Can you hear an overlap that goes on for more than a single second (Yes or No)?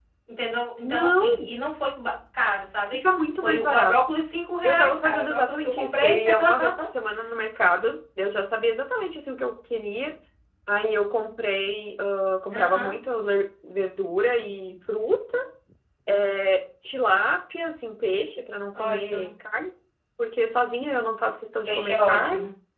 Yes